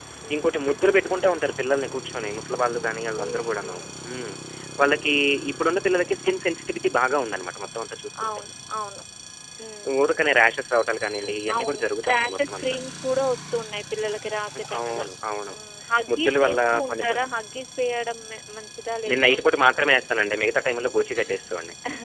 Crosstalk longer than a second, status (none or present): present